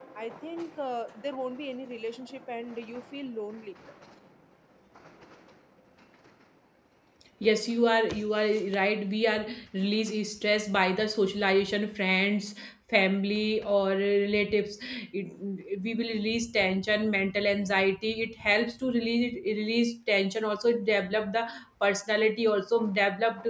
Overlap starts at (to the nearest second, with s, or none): none